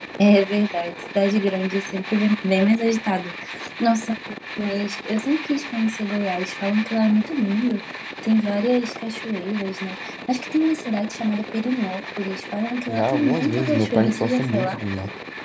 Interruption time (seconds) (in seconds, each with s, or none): 12.9 s